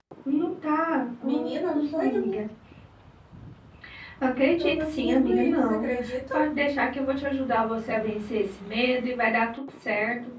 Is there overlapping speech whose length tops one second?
Yes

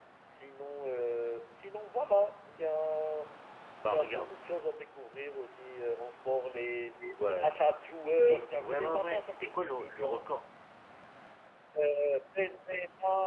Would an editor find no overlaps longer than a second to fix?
No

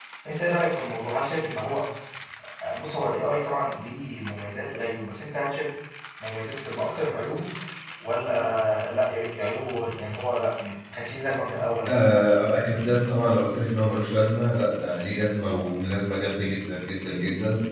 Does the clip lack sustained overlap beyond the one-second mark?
Yes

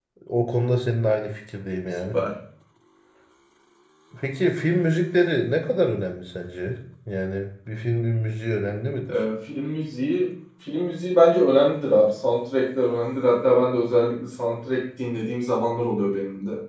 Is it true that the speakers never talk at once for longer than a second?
Yes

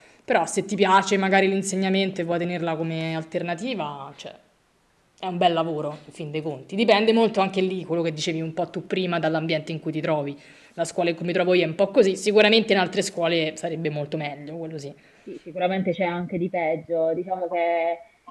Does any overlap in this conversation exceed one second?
No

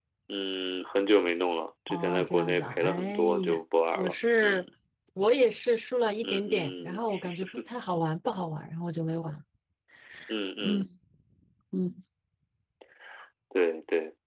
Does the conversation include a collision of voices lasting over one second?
Yes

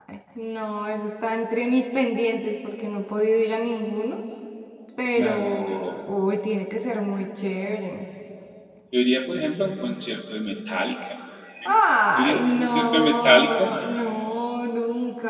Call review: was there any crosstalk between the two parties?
Yes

